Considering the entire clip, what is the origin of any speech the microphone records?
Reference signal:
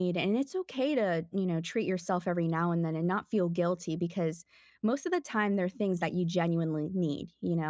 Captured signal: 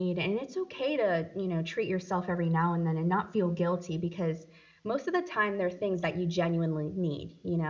echo only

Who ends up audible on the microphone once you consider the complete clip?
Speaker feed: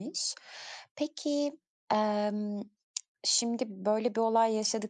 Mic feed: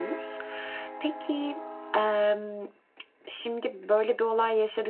echo only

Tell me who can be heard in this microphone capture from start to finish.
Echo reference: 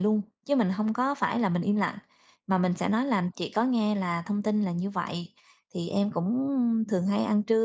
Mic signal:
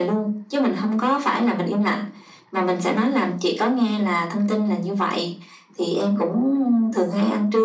echo only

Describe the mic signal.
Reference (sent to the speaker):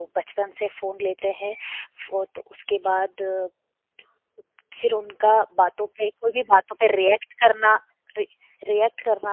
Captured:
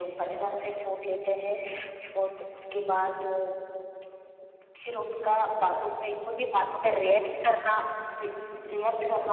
echo only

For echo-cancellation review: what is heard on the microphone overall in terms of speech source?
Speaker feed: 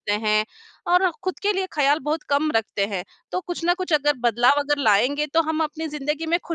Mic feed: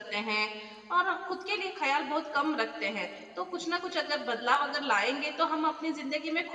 echo only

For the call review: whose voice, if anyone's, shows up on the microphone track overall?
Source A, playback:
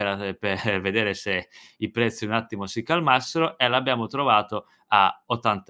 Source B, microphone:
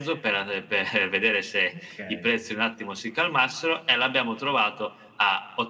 both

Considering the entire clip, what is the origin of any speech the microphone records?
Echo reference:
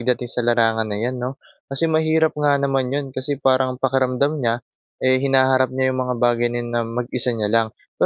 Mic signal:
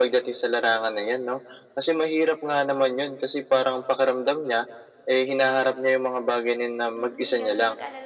both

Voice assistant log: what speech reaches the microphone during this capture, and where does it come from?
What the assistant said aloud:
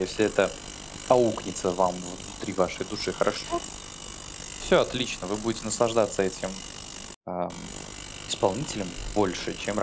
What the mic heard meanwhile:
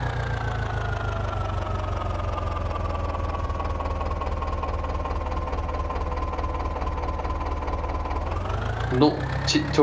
user only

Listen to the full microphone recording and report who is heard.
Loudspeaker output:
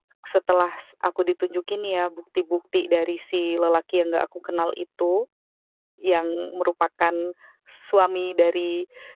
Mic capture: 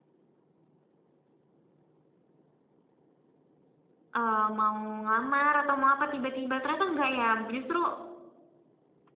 user only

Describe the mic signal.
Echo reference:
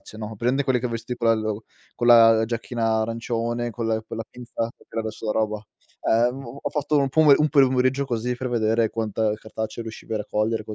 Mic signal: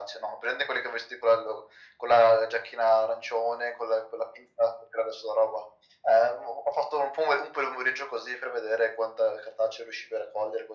echo only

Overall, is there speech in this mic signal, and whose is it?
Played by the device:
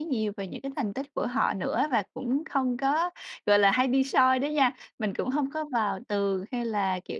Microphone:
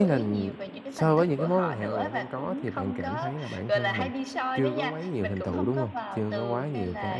both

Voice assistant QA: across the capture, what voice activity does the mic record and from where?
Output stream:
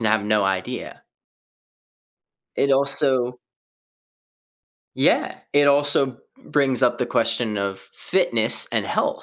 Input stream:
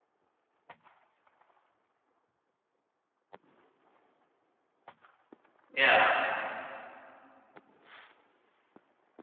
user only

